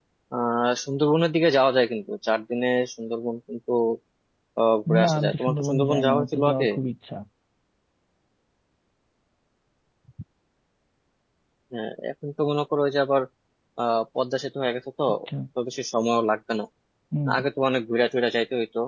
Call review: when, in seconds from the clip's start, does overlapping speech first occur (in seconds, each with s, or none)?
5.0 s